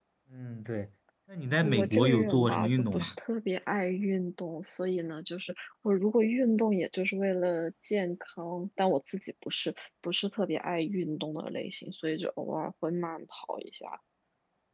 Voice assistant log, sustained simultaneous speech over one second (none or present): present